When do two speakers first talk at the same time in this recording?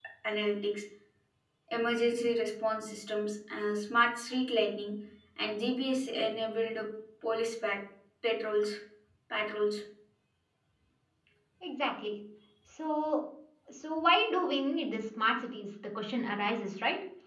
none

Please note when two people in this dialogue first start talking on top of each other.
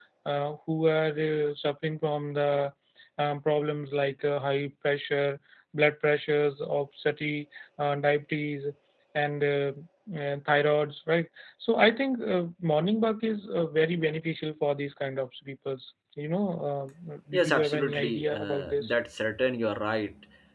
17 s

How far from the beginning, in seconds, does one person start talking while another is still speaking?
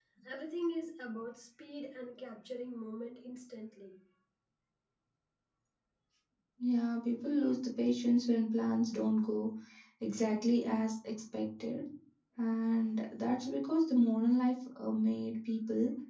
none

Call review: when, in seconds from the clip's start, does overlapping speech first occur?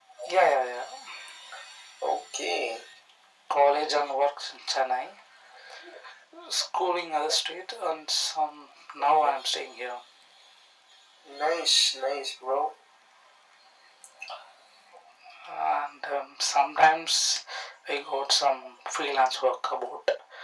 none

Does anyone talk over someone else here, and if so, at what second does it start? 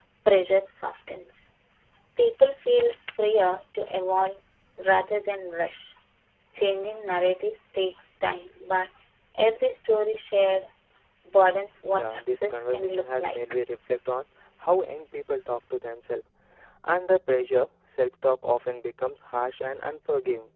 12 s

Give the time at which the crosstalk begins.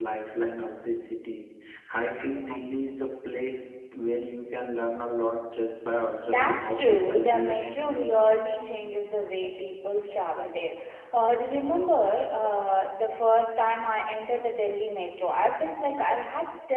6 s

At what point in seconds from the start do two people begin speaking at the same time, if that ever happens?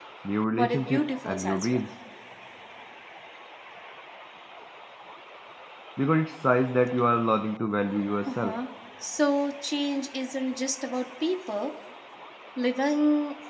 1 s

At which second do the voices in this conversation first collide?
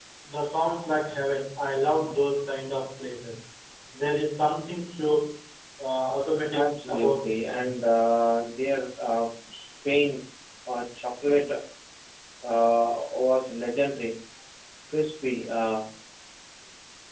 7 s

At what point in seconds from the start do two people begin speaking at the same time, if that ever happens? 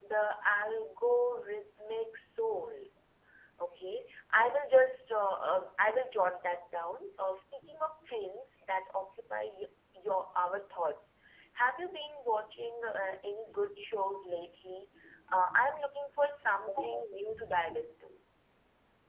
none

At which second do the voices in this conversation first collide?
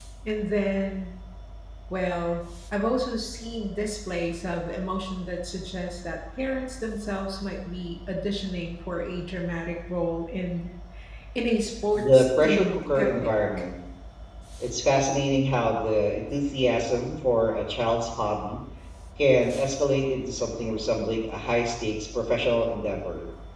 12 s

